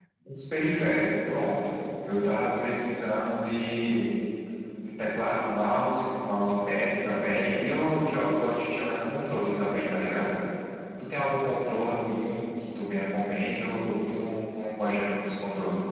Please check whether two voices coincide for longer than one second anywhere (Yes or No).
No